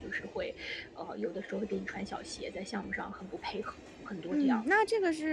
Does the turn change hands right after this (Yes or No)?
Yes